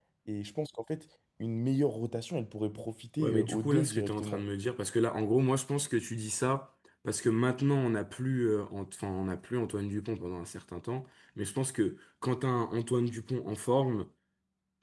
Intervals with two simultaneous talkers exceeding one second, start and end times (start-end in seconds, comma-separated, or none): 3.2-4.4